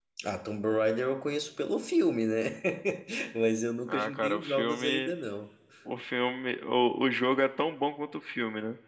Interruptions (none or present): present